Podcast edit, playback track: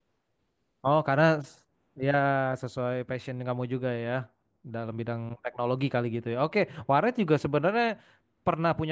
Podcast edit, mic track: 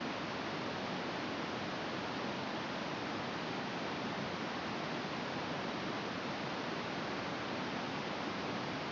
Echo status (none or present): none